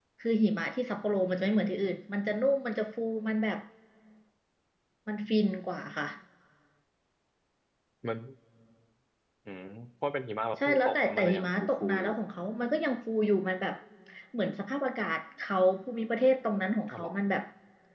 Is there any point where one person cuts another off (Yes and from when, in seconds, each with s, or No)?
Yes, from 10.7 s